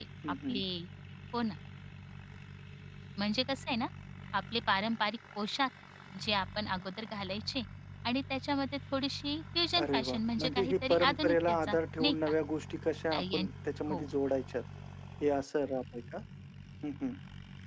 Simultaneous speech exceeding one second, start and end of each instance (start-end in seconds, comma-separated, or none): 9.8-12.3